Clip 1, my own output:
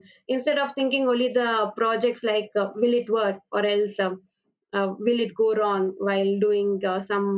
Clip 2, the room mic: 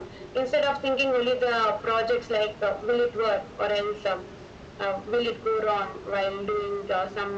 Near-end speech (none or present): none